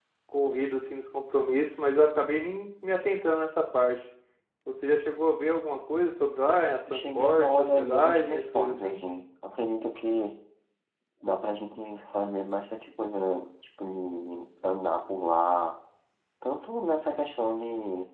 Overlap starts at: 7 s

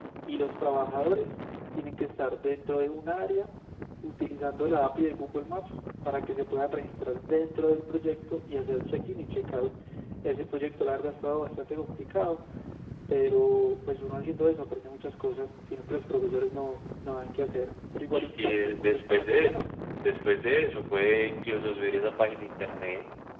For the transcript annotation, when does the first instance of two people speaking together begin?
18 s

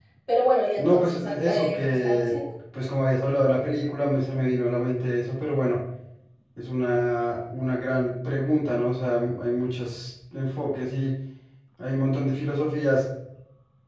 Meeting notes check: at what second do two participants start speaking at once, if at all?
1 s

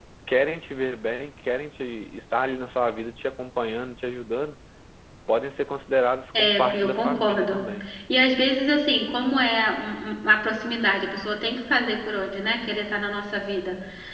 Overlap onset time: 6 s

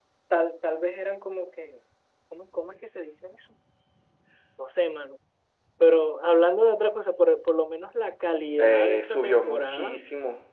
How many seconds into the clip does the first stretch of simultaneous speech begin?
9 s

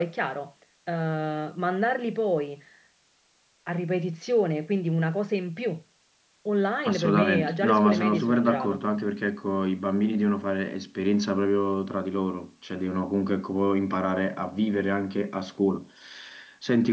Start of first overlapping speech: 7 s

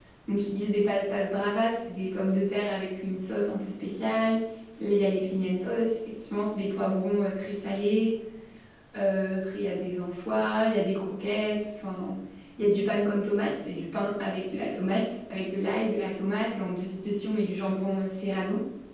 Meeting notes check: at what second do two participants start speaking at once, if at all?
none

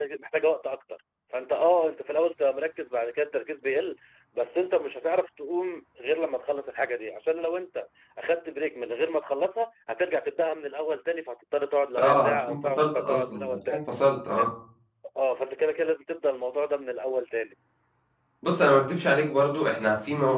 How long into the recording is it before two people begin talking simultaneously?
12 s

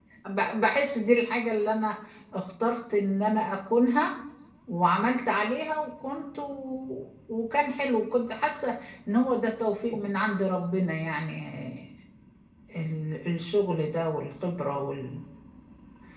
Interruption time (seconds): none

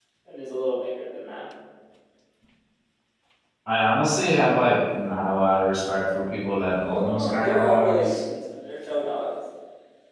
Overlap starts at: 7 s

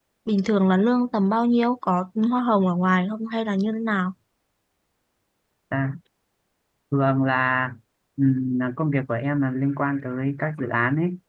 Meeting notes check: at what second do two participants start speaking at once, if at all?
none

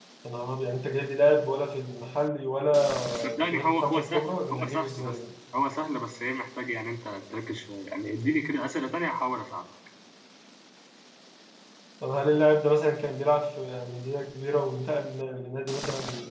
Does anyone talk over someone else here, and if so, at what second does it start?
3 s

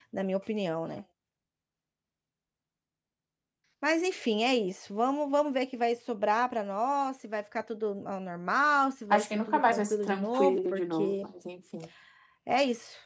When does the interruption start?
9 s

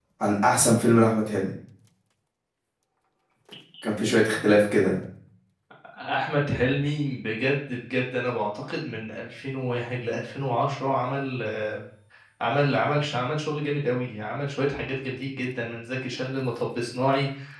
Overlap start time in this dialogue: none

